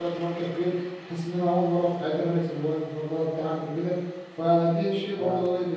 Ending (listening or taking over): listening